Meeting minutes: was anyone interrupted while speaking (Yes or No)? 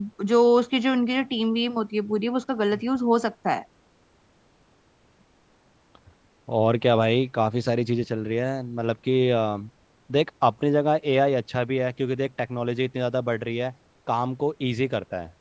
No